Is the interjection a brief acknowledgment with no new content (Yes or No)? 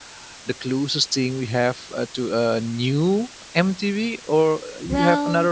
No